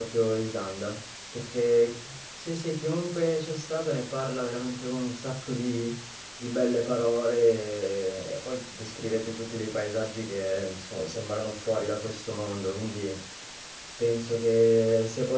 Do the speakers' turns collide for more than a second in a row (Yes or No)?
No